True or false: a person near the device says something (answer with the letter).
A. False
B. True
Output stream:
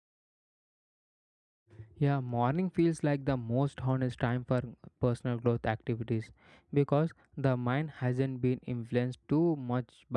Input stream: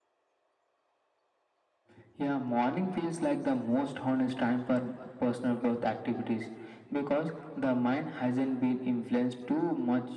A